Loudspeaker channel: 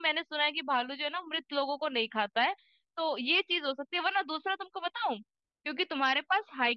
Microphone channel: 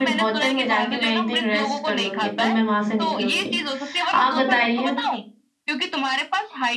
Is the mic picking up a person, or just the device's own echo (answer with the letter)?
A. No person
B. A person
B